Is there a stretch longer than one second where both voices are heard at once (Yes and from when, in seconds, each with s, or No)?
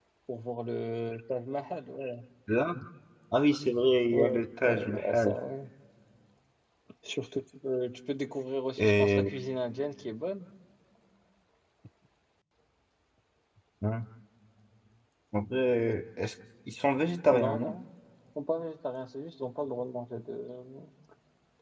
Yes, from 4.1 s